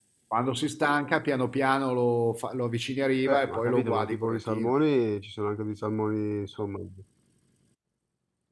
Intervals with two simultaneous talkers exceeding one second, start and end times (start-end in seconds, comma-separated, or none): 3.2-4.7